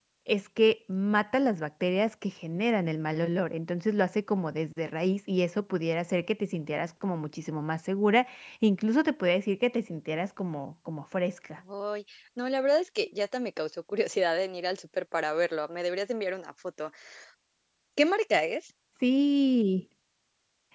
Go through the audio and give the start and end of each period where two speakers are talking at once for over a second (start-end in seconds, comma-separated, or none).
none